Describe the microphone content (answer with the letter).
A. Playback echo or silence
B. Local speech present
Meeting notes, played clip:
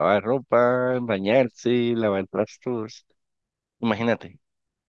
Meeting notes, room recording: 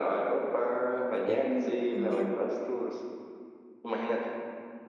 B